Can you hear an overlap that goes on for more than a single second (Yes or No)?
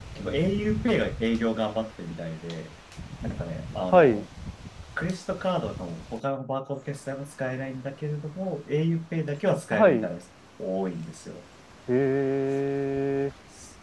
No